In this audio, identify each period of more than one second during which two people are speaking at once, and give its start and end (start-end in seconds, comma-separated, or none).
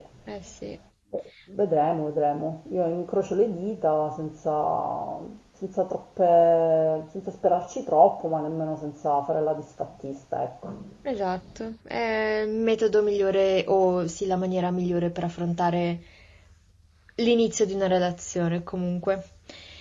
none